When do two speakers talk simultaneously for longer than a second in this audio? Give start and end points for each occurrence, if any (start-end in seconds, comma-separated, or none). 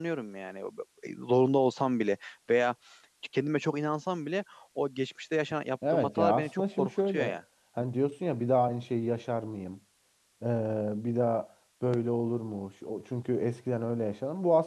5.9-7.4